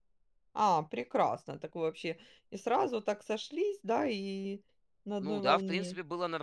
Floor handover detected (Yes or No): Yes